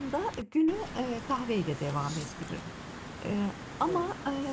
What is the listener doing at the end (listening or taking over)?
listening